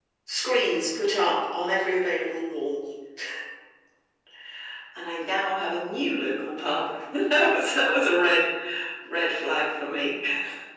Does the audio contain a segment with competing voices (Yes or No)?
No